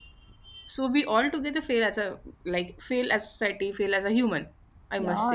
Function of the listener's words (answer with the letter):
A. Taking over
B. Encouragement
A